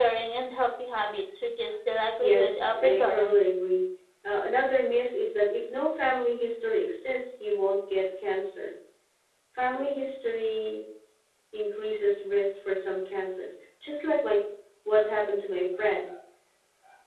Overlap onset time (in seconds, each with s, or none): 2.2 s